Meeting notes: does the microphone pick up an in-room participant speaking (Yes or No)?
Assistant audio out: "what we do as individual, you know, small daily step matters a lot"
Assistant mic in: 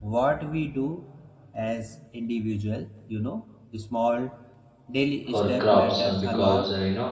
Yes